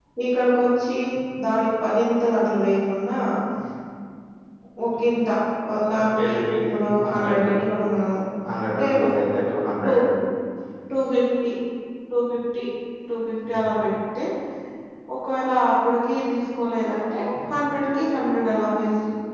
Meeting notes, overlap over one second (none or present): present